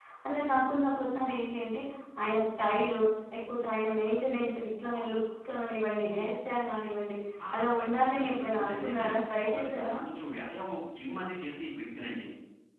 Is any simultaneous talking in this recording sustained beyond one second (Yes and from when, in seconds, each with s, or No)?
Yes, from 7.6 s